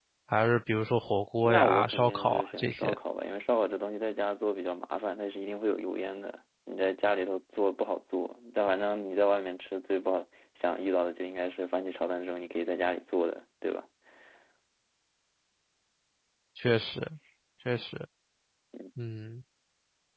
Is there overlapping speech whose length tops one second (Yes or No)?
Yes